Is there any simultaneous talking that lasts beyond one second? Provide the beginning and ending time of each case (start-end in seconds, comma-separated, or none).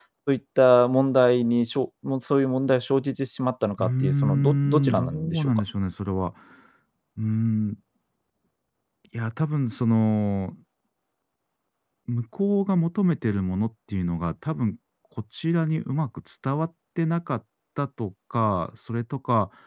3.8-5.5